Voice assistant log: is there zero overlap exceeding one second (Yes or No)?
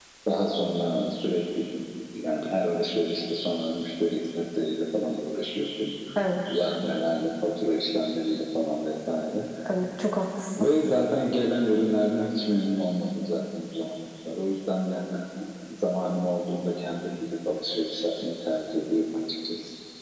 Yes